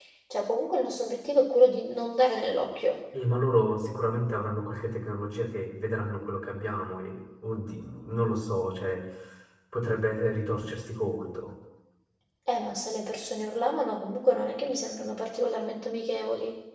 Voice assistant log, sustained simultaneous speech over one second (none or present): none